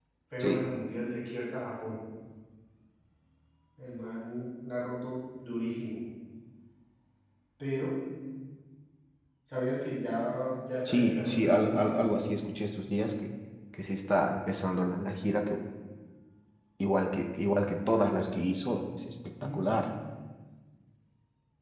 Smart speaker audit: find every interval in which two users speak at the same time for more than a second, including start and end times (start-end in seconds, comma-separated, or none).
10.8-12.2